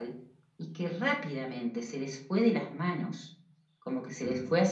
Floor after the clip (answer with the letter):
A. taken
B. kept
B